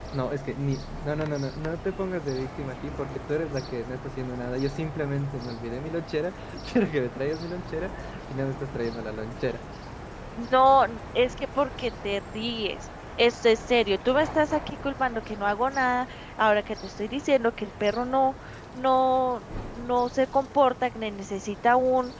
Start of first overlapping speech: none

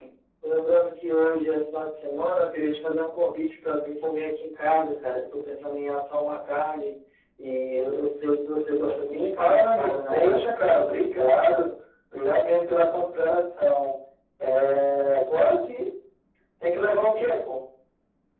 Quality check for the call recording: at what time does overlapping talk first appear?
9 s

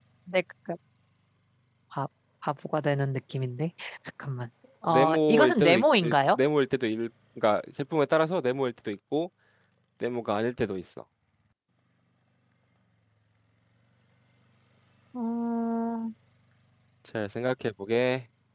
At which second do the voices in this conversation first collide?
5 s

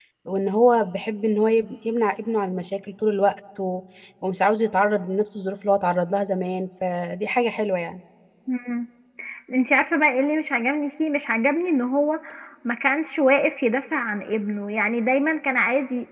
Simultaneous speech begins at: none

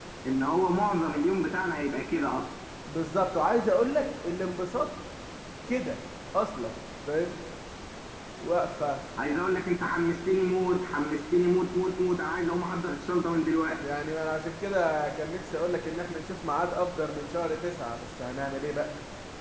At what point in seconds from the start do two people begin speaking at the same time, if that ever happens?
none

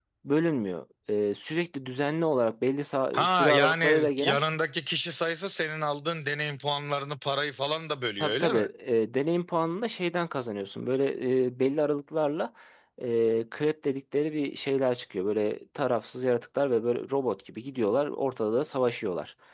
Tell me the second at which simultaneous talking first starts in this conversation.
3 s

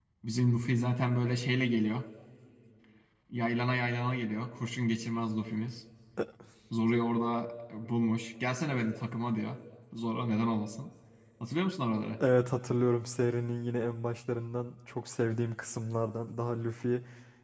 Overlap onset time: none

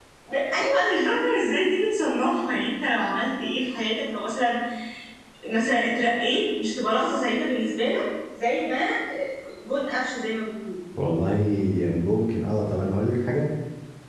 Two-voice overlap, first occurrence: none

